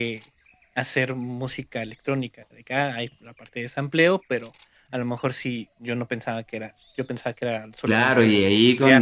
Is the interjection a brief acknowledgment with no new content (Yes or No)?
No